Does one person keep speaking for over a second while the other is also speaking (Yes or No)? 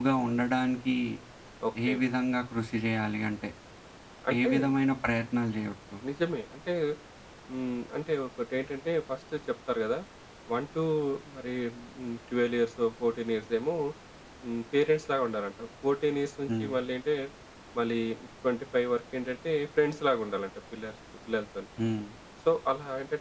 No